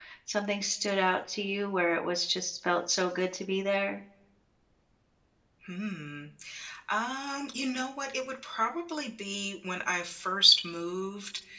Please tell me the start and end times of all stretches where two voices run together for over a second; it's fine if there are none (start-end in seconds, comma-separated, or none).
none